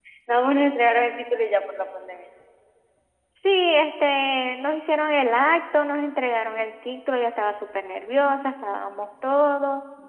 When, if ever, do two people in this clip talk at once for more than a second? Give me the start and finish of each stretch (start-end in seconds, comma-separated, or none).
none